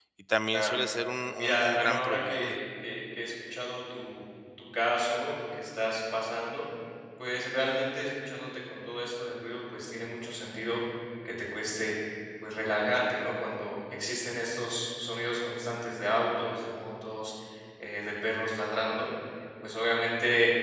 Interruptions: present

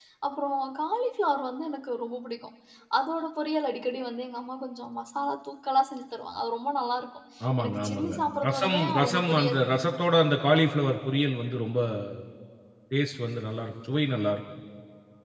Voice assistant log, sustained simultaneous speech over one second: present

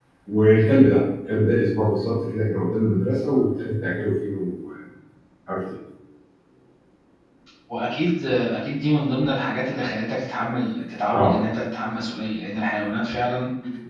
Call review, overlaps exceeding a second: none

